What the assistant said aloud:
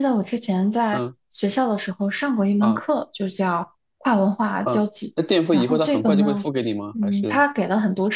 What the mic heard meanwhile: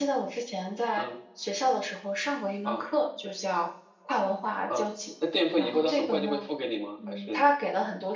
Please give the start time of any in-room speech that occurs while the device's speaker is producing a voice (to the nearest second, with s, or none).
none